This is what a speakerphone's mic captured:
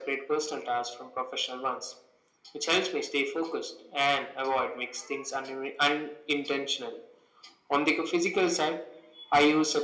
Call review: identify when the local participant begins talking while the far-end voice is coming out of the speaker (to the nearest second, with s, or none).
none